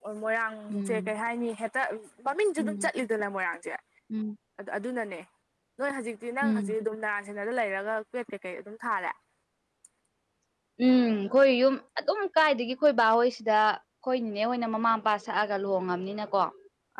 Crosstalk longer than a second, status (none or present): none